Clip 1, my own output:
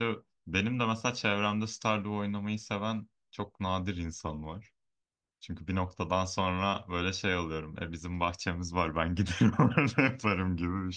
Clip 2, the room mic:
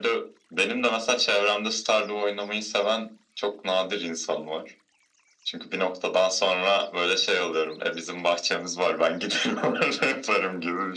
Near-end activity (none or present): none